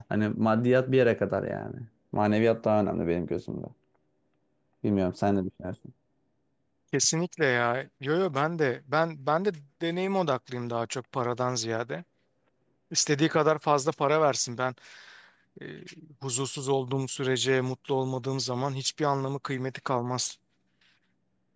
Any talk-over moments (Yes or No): No